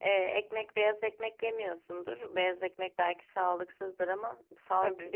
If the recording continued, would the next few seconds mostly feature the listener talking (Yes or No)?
No